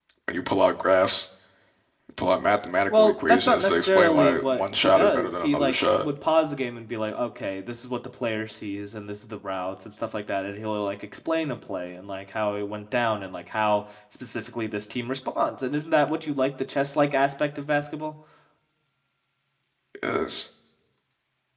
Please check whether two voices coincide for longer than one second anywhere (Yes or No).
Yes